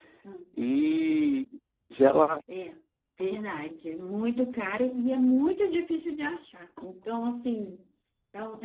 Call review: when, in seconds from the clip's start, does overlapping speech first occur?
none

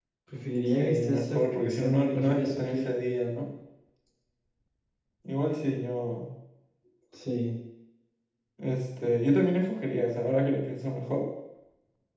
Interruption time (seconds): 1 s

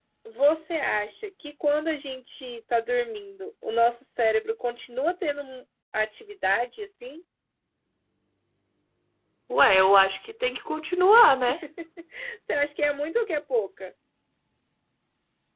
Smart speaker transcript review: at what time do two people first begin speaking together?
none

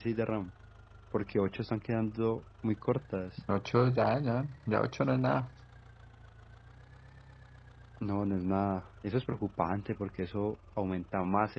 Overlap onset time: none

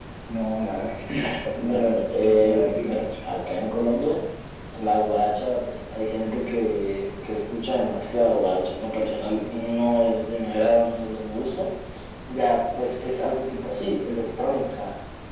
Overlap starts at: 1 s

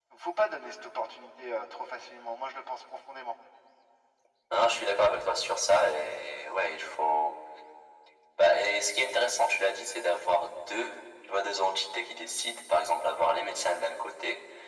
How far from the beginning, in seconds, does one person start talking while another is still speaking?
none

